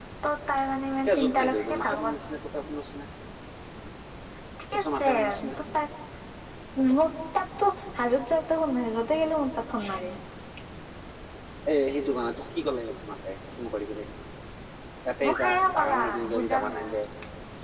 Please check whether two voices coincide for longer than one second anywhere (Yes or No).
Yes